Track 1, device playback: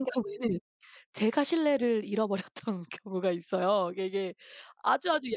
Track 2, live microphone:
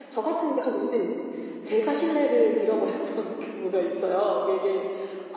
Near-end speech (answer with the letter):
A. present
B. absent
B